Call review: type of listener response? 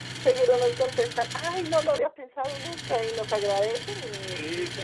taking over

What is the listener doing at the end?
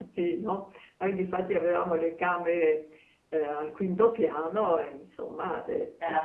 listening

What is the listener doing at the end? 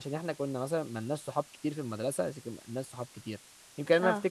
listening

